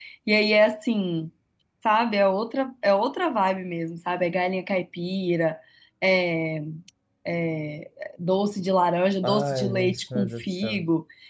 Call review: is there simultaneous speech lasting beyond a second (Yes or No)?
Yes